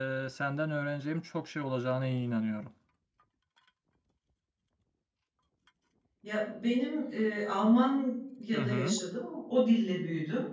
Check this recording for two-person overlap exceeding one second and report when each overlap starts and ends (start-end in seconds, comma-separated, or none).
none